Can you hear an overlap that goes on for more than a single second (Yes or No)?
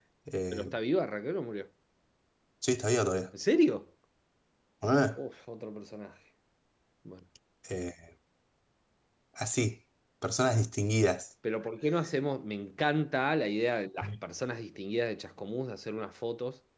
No